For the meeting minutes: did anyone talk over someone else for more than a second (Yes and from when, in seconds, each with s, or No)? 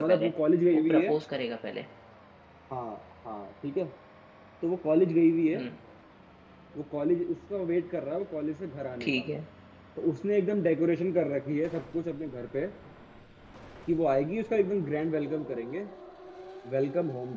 No